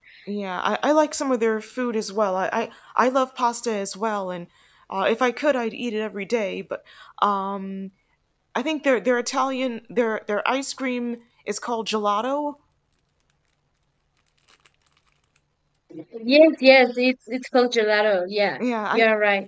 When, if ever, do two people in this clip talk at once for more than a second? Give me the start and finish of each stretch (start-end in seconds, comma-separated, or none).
none